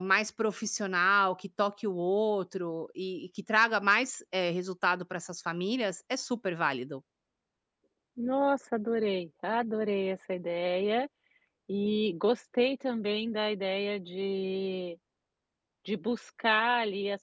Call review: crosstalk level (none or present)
none